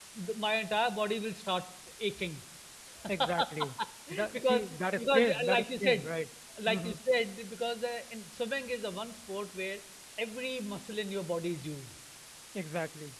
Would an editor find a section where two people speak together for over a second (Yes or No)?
Yes